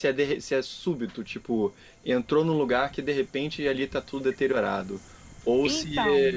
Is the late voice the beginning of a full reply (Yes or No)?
No